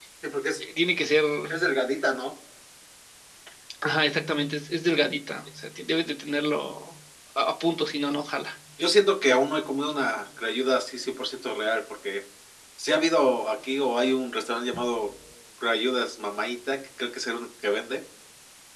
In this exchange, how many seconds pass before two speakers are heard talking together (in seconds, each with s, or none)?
none